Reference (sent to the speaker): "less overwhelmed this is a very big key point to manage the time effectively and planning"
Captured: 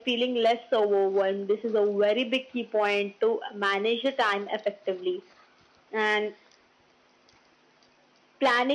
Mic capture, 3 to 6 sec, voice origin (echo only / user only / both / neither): echo only